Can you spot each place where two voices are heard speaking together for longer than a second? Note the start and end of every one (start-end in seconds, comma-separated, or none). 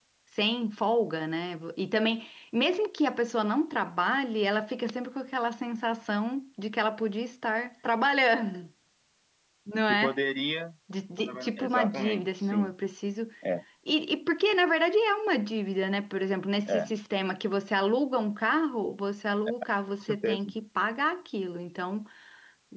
11.1-12.7